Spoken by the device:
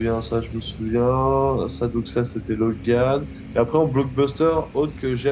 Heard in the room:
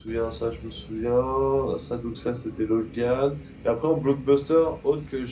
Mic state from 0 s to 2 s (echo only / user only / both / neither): echo only